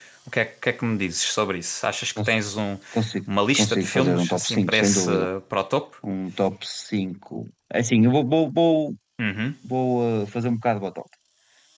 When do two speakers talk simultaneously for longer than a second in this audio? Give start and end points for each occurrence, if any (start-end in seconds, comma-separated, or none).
3.5-5.1